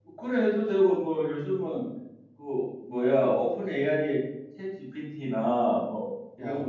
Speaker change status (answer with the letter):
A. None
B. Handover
A